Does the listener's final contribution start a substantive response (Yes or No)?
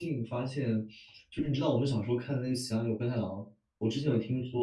No